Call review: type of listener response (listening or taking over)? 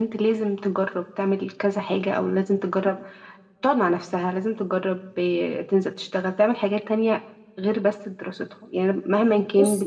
listening